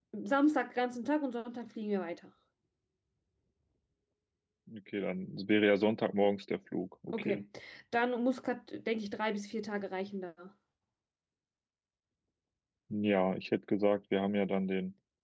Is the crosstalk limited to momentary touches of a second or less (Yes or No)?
Yes